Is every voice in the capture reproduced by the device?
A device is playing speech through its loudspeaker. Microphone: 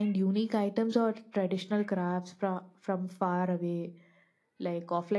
Yes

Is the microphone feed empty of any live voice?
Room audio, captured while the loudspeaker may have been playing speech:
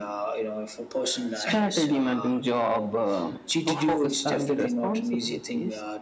Yes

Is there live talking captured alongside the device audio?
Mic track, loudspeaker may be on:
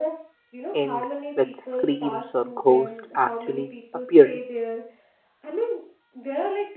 Yes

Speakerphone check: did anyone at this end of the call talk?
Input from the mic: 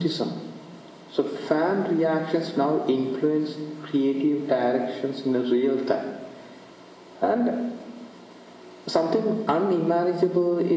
No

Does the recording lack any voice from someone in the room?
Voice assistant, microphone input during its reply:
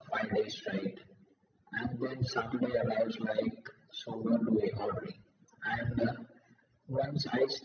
Yes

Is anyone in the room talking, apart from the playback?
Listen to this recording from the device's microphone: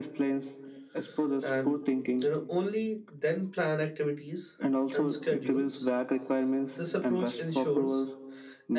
Yes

